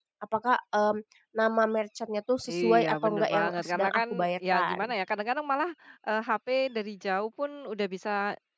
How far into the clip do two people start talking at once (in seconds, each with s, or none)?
2.5 s